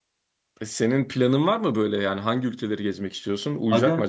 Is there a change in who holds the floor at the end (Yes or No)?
Yes